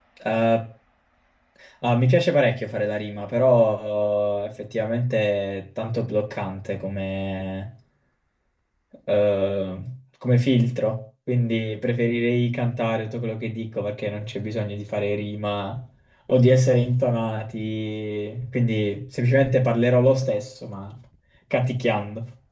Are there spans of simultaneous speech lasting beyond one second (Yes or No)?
No